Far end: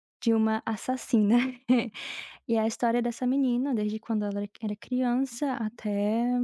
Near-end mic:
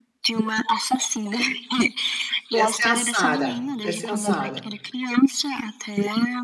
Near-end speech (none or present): present